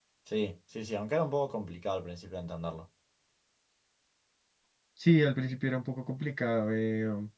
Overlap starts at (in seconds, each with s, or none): none